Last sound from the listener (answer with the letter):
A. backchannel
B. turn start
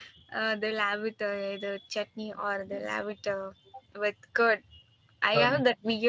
A